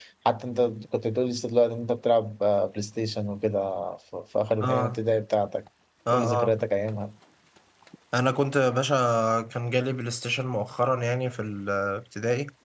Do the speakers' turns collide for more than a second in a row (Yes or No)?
No